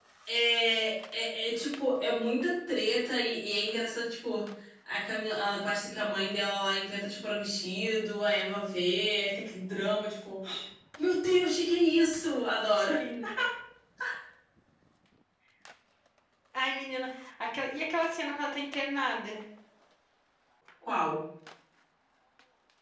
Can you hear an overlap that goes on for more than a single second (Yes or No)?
No